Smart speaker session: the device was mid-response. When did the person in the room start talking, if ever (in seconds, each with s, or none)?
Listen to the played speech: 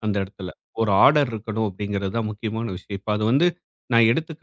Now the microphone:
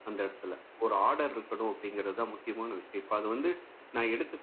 none